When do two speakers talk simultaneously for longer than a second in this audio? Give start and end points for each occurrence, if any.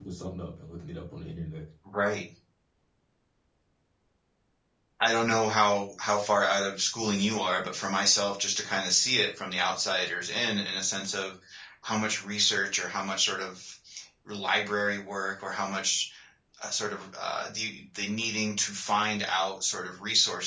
none

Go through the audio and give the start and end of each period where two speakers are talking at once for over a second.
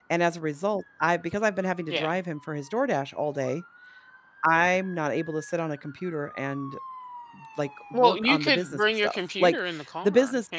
7.9-9.6

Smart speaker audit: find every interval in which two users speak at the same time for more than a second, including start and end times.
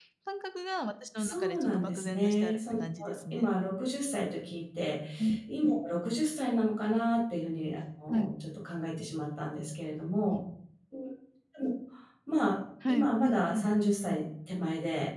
1.2-2.8, 12.9-14.2

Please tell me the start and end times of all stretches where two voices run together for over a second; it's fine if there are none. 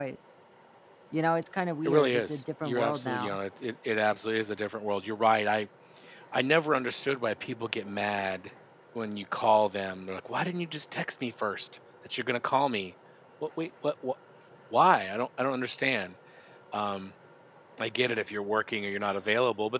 1.9-3.4

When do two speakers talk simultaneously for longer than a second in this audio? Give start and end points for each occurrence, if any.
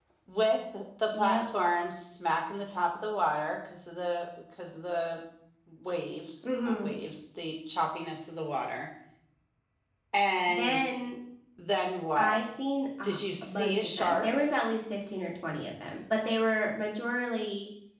13.0-14.4

